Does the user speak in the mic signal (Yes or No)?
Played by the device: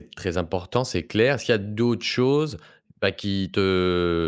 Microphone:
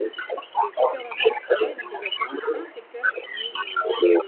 Yes